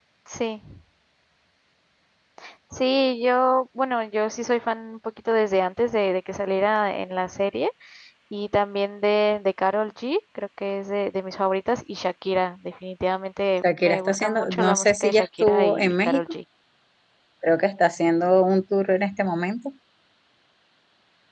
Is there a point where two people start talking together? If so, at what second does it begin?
14 s

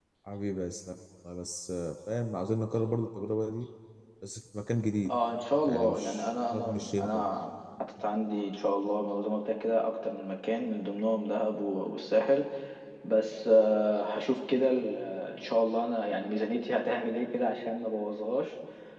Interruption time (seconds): 6 s

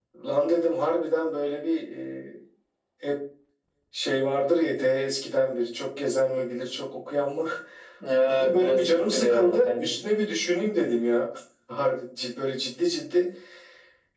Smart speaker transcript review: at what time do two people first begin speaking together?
8 s

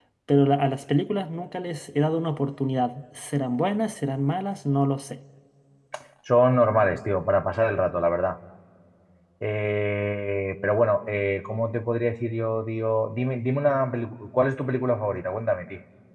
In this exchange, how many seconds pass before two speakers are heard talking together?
none

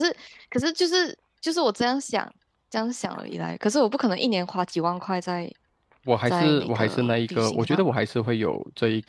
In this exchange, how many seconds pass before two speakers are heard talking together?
6 s

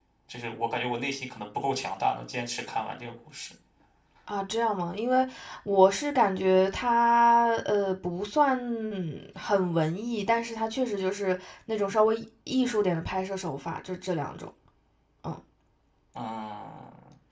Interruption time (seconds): none

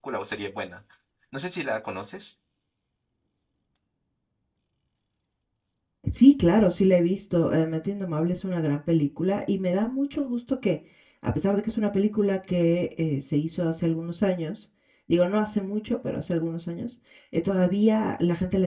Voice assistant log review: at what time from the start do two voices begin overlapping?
none

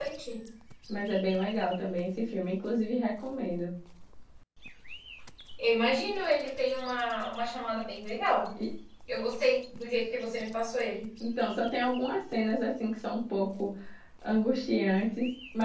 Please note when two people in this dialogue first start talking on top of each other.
none

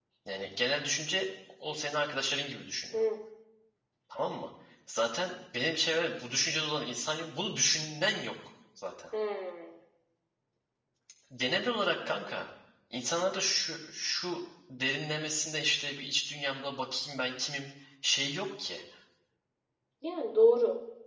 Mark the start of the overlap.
none

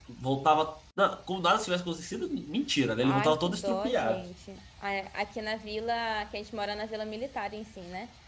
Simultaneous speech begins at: 3 s

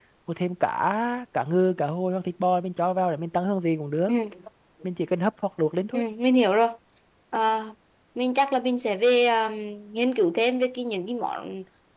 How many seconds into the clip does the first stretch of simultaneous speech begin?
none

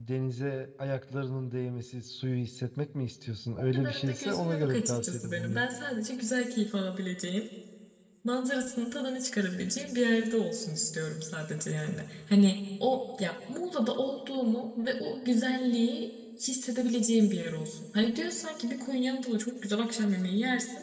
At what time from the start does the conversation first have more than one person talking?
4 s

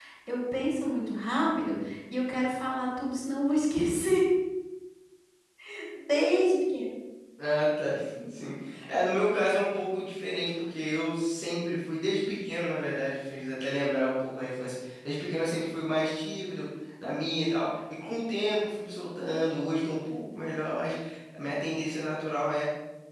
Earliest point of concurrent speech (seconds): none

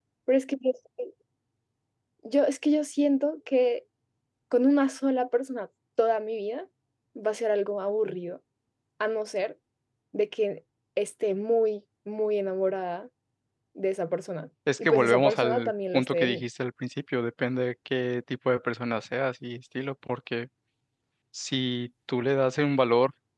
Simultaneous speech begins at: 15 s

